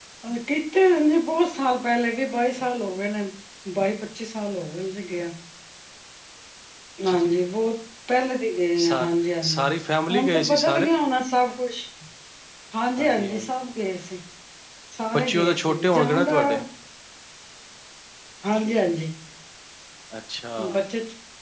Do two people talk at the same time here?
Yes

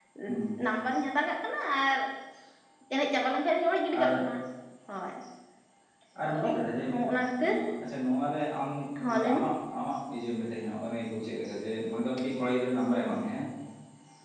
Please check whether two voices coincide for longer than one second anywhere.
No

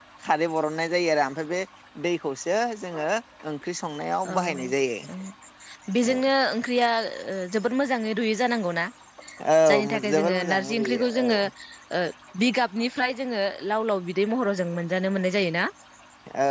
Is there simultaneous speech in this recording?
Yes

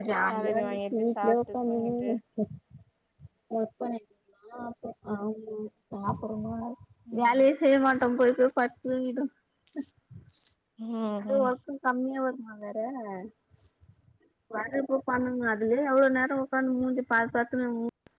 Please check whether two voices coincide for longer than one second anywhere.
Yes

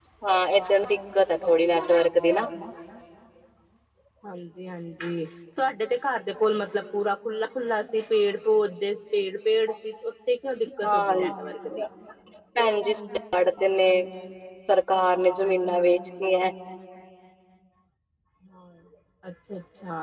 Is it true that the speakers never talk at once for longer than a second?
Yes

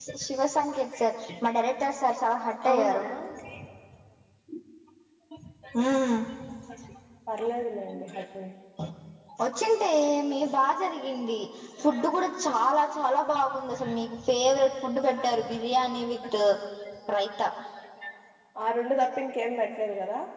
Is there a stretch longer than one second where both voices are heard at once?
No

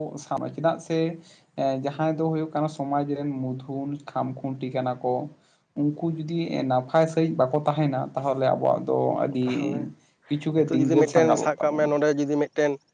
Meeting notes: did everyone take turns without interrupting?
No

